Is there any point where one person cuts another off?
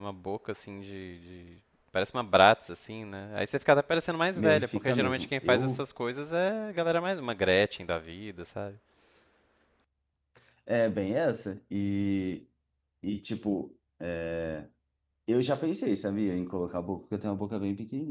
Yes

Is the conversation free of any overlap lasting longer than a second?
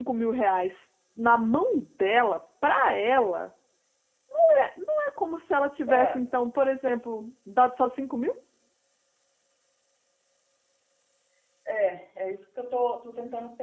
Yes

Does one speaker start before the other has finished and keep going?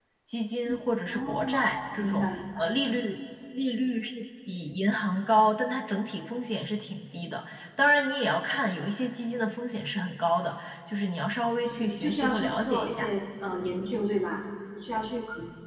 Yes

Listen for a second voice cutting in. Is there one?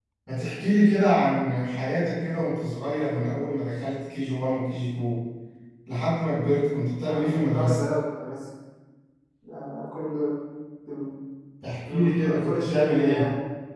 Yes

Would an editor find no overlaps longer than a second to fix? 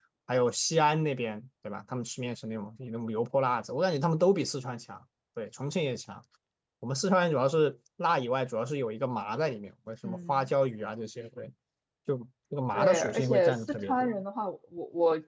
No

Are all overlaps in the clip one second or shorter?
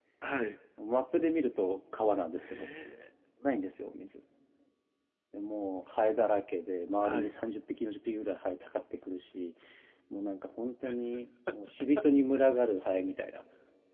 Yes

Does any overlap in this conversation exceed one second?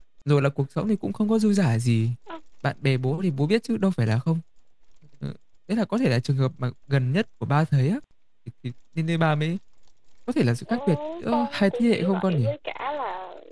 Yes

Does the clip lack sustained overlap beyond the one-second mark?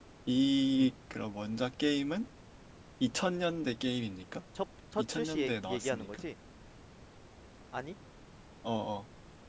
No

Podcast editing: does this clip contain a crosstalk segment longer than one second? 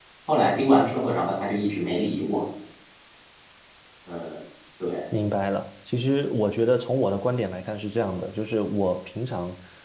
No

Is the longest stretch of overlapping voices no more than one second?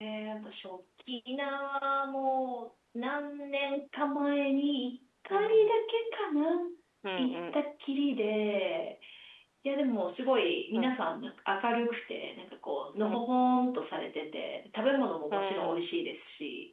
Yes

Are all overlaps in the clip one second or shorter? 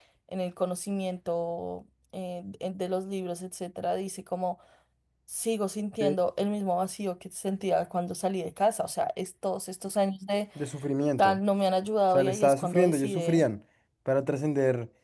No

